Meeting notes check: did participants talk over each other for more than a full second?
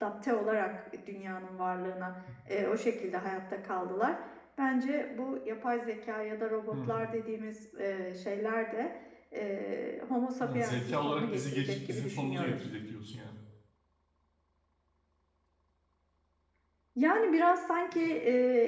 Yes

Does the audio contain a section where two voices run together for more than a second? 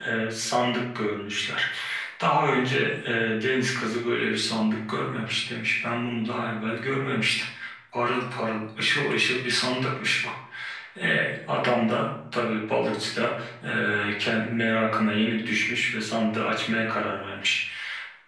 No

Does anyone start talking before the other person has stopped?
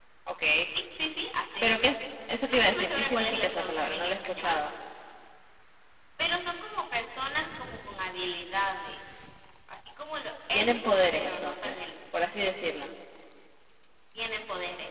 Yes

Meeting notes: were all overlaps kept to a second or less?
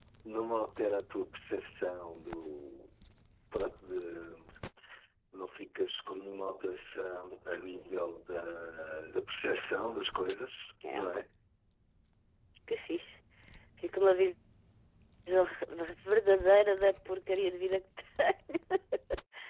Yes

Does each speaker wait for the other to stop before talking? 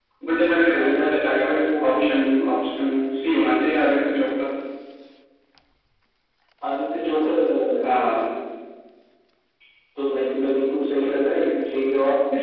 No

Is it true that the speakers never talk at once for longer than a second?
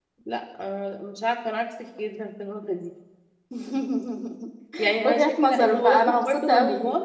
No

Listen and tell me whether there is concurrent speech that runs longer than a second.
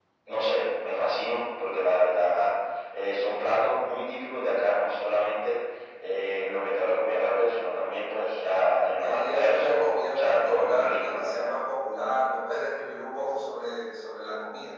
Yes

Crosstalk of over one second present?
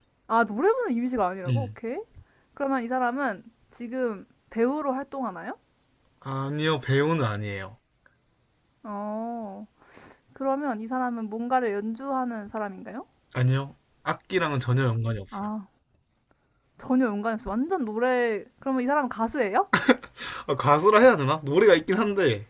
No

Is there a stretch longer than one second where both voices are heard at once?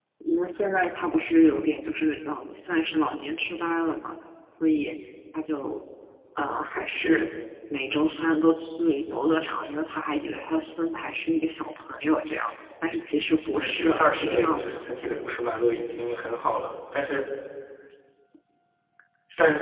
Yes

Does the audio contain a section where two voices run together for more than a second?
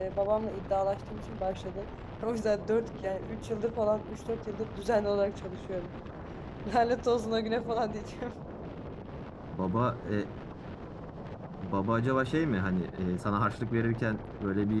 No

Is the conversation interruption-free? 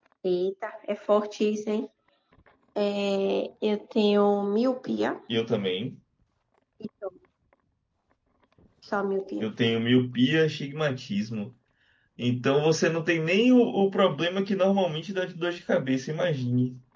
Yes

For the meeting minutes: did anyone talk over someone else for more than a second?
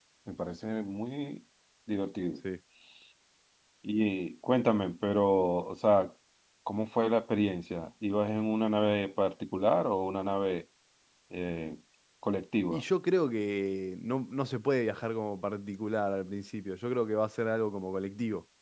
No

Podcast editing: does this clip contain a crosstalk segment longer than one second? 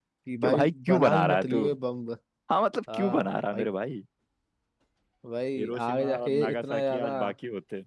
Yes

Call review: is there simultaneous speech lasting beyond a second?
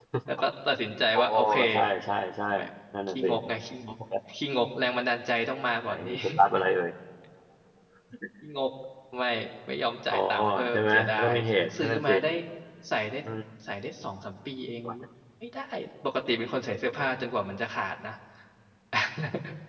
Yes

